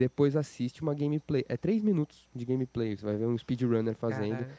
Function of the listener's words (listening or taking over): listening